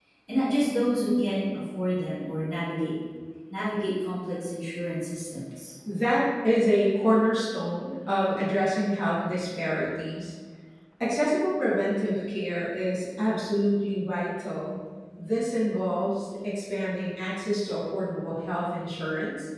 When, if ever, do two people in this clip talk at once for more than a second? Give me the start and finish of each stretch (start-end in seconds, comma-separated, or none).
none